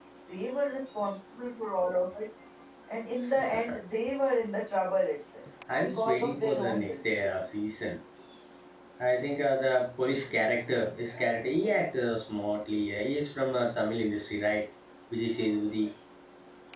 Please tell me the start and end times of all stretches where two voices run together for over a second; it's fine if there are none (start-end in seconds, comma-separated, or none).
5.9-7.2